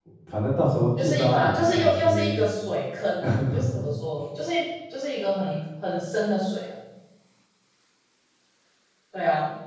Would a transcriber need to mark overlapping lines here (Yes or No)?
Yes